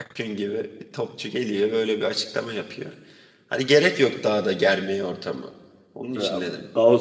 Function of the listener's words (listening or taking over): taking over